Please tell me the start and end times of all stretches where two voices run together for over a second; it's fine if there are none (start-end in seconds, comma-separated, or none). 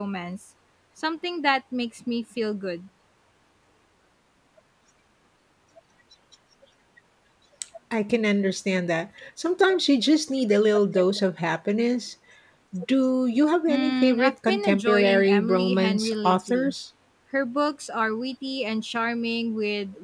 13.7-16.7